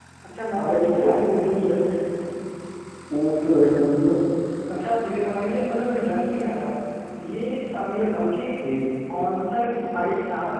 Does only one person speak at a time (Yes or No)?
No